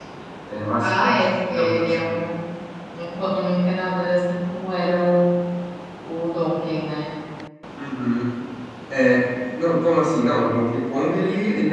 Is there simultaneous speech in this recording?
Yes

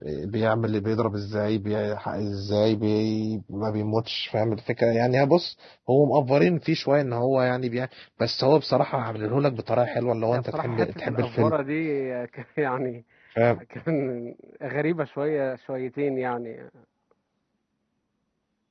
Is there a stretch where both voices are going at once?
Yes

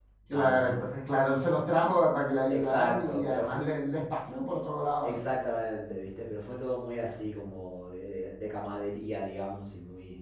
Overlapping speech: Yes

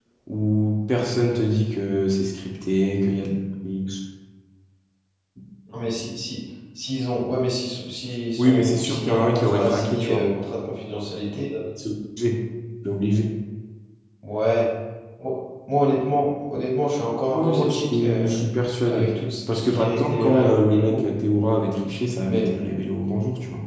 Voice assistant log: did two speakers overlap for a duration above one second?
Yes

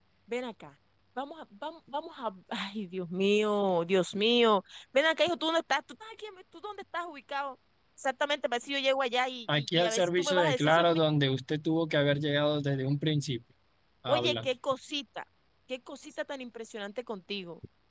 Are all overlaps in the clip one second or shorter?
No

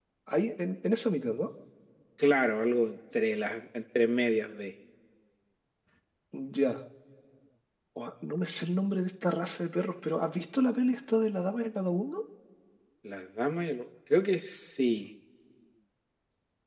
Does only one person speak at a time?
Yes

